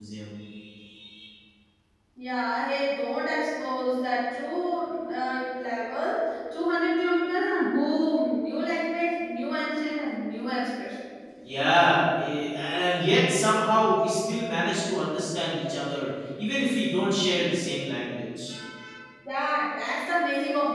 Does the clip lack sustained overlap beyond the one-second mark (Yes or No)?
Yes